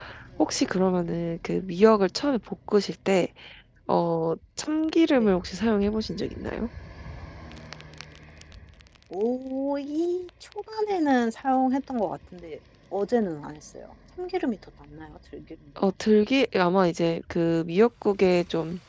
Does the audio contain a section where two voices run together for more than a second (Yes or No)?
No